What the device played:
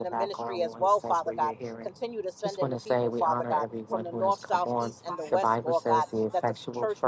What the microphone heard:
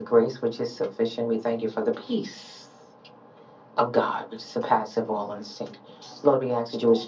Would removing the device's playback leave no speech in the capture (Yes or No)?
No